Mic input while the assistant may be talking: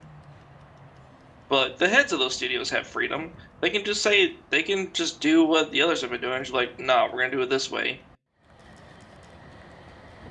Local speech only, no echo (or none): but the heads of those studios have freedom. They can just say they can just do what the others have been doing. Just like, nah, we're gonna do it this way.